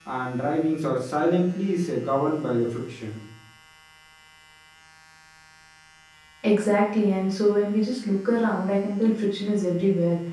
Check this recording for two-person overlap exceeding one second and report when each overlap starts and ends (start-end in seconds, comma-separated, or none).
none